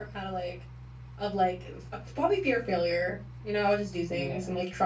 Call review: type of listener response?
listening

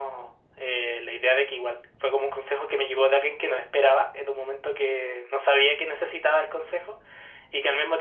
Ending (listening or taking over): listening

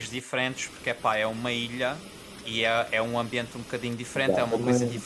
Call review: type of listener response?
listening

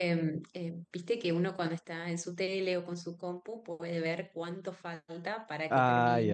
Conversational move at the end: listening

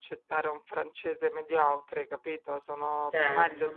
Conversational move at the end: listening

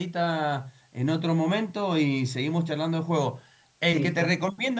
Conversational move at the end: listening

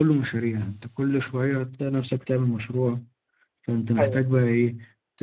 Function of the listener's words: listening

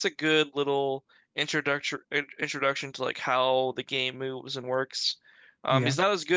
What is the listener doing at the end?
listening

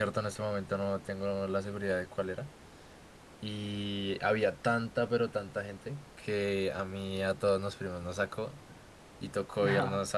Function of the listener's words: listening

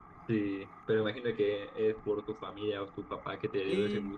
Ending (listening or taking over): taking over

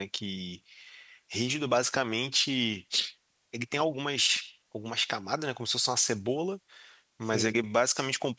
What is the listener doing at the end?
listening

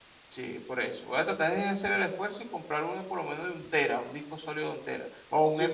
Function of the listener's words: taking over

